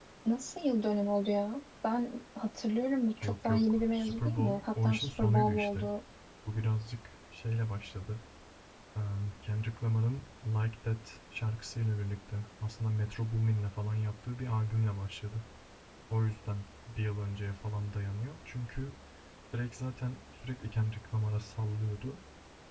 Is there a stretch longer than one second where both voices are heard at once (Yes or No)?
Yes